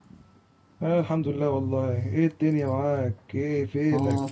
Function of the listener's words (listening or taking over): taking over